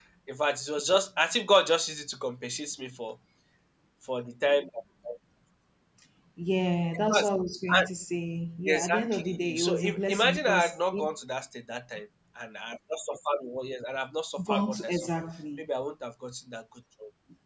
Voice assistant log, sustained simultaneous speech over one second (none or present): present